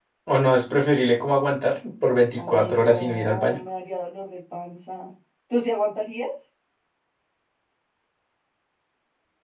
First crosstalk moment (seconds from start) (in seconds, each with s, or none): 2.4 s